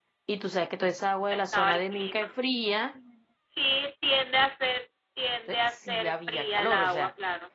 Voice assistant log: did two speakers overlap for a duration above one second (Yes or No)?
Yes